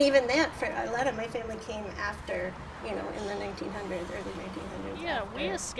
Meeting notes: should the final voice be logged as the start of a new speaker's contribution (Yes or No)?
Yes